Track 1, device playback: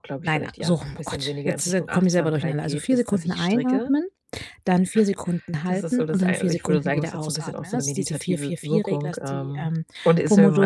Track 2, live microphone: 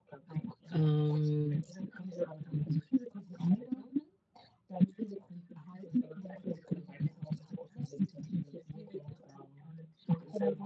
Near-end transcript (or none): ähm